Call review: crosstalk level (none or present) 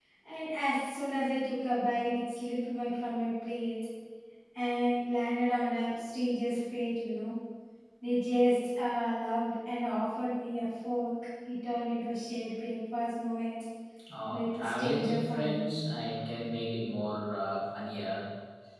present